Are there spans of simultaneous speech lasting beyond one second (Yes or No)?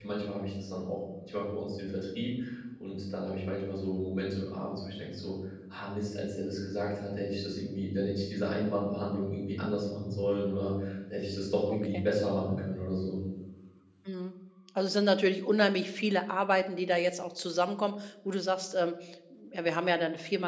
No